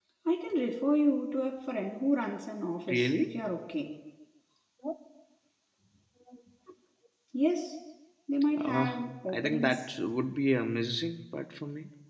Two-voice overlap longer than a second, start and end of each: 8.6-9.8

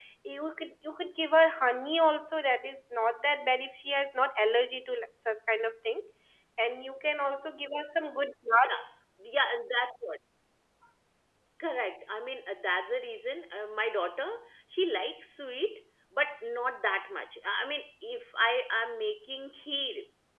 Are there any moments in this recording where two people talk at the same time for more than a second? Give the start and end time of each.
none

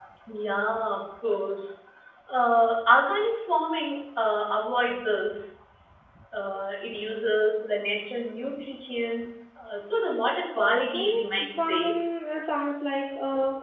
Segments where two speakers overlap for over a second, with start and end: 10.6-12.0

